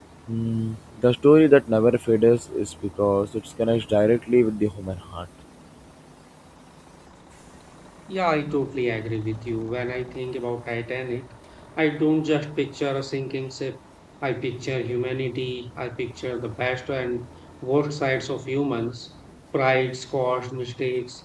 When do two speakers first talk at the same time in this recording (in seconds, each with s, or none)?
none